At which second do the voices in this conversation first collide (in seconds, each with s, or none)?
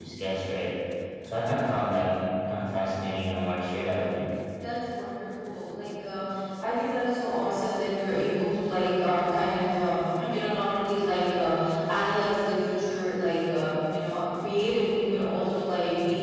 none